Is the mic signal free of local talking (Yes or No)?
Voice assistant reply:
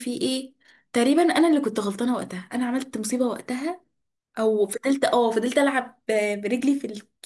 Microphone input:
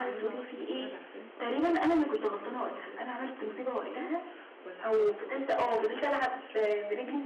No